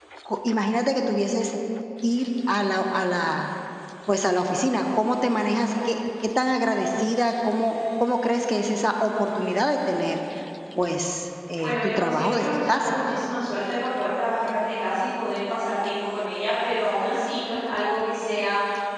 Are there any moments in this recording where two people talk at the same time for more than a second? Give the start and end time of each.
11.6-13.0

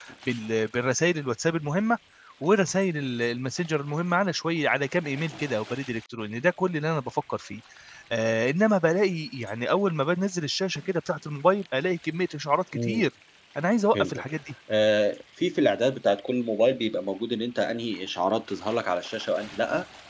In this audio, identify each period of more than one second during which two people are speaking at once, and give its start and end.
none

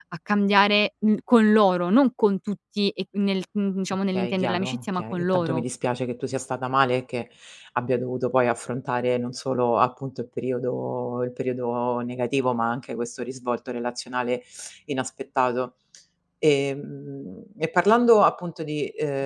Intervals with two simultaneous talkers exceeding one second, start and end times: 4.1-5.6

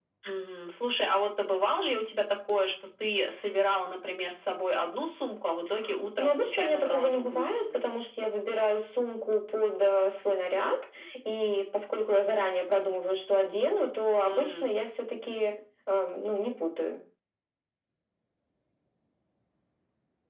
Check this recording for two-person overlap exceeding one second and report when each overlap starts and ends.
6.2-7.7

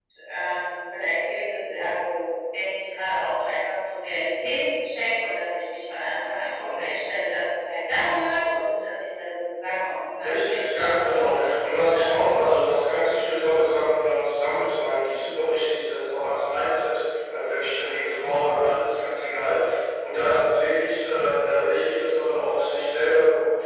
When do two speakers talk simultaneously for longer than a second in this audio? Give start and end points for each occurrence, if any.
10.2-12.2

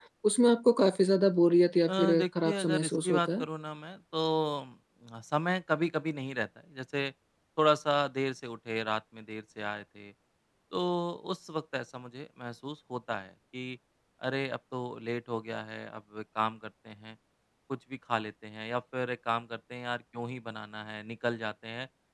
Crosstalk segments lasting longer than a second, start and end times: 1.9-3.4

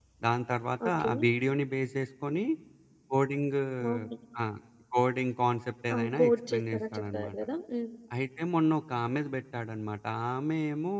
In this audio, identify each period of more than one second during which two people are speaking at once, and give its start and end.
5.9-7.3

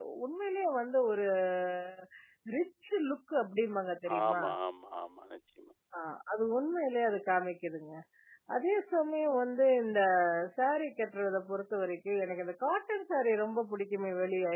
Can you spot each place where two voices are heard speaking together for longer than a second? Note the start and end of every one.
none

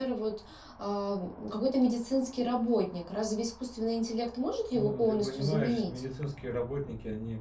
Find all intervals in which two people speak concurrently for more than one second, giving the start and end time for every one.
4.7-6.0

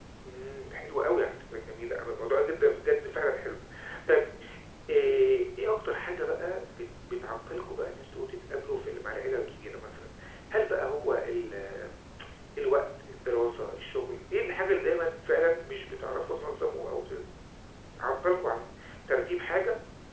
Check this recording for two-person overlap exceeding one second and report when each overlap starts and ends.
none

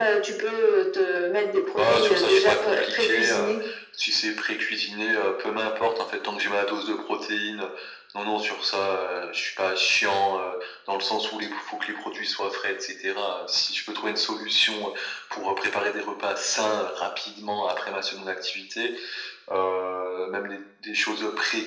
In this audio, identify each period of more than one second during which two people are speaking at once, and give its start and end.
1.8-3.5

